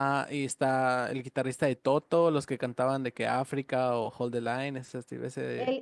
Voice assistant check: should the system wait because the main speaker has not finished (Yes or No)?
No